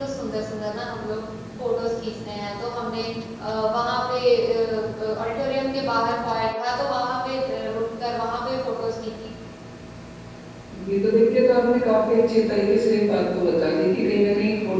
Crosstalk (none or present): none